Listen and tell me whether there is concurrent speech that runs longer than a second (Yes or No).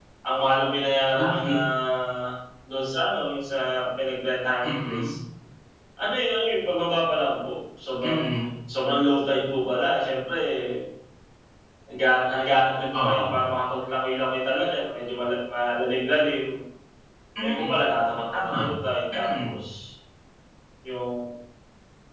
No